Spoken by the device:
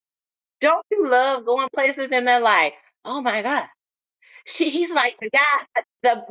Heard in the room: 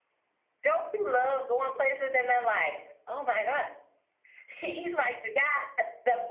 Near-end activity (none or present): none